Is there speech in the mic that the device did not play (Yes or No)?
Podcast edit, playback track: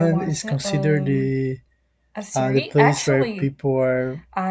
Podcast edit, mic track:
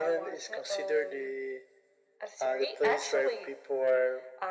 No